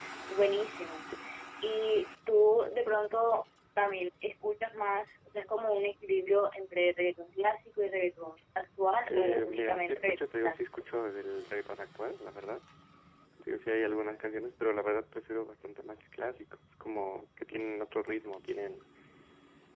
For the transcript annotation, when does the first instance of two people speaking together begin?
9 s

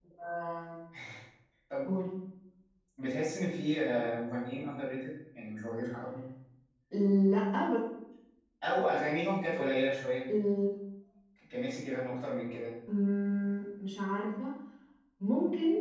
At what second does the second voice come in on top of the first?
none

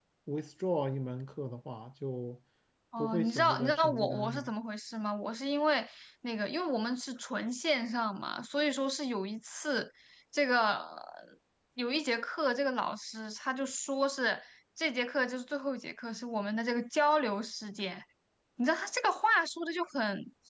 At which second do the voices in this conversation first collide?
3 s

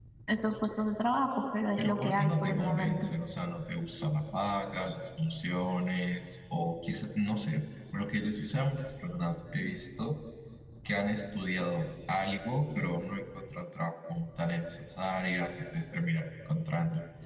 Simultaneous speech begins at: 2 s

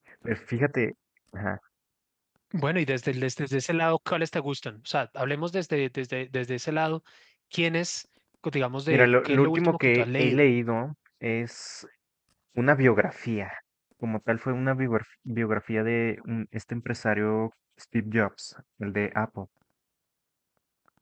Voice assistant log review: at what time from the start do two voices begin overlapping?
9 s

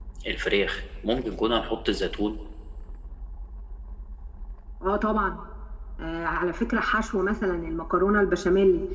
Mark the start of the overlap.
none

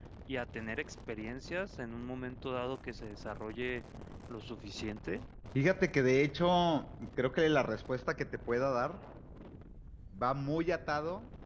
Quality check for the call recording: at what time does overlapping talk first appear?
none

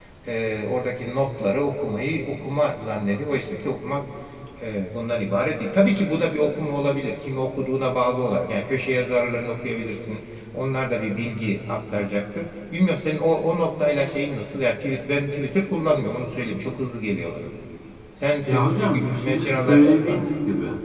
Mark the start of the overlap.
18 s

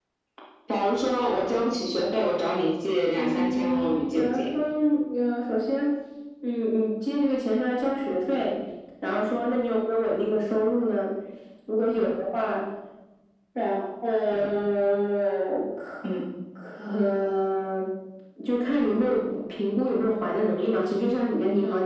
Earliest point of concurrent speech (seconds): 3 s

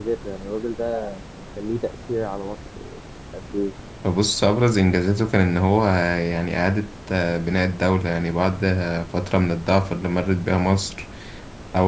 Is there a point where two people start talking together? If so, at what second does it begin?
none

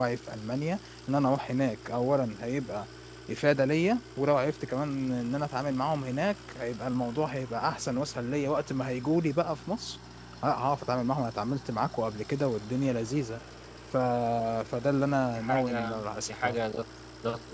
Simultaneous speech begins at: 15 s

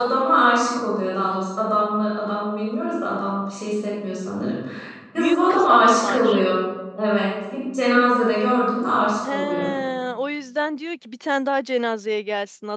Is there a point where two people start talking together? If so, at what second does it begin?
5 s

